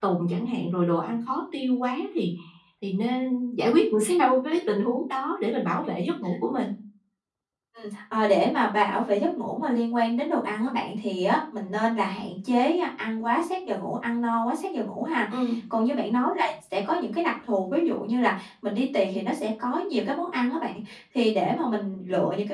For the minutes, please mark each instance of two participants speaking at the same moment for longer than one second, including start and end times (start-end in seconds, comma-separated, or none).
none